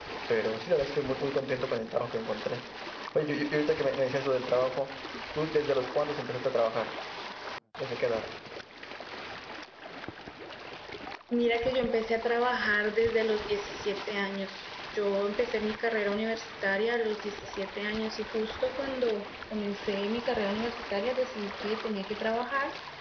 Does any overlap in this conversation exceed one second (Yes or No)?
No